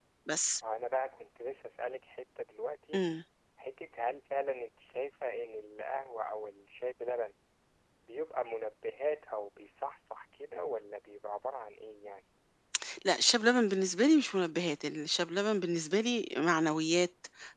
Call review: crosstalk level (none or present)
none